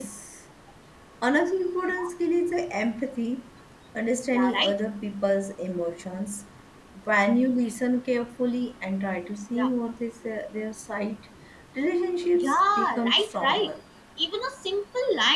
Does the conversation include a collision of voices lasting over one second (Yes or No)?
Yes